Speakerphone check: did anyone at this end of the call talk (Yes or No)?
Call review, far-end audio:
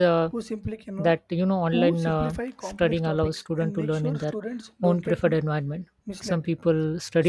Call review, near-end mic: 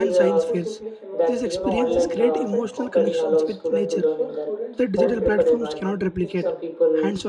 Yes